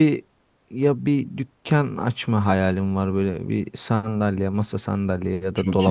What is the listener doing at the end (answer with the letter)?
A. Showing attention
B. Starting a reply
A